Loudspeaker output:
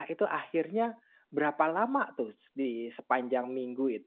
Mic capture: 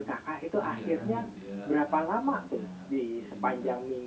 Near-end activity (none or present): present